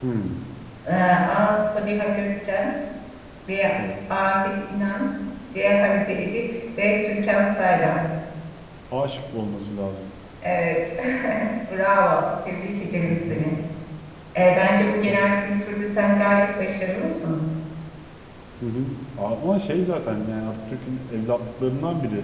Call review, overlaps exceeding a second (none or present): none